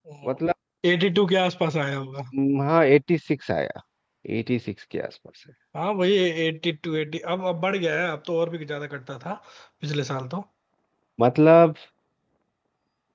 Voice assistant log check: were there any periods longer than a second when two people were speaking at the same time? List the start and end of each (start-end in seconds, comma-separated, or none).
none